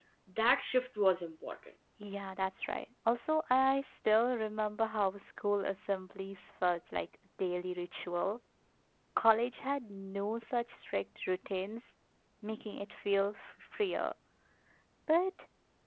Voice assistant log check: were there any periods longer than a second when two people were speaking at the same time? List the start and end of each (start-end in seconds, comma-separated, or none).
none